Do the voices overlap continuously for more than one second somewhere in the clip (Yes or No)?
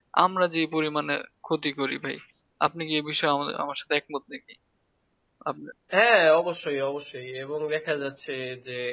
No